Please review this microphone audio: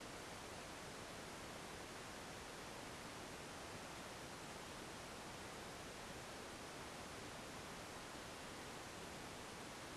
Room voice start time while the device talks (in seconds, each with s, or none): none